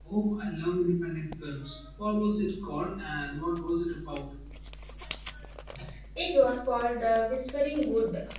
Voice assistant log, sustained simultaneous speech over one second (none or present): none